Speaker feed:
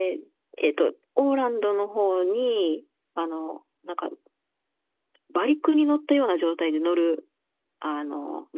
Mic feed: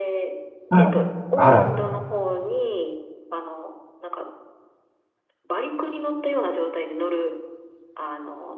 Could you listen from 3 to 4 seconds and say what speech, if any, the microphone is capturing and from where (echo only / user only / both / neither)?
echo only